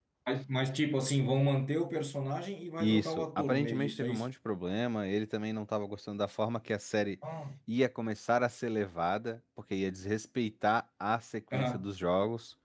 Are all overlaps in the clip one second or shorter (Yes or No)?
No